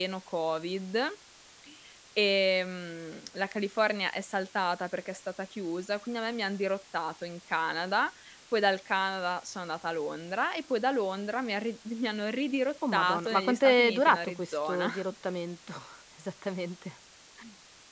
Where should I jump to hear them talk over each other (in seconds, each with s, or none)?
12.8 s